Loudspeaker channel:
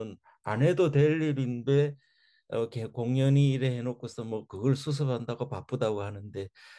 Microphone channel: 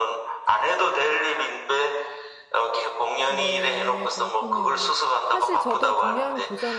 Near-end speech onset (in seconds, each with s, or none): 3.3 s